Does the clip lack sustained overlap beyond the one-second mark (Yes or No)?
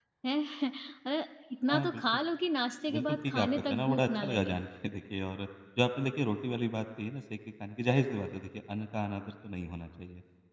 No